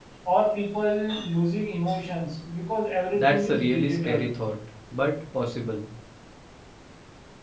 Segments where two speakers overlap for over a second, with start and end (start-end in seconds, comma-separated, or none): 3.1-4.3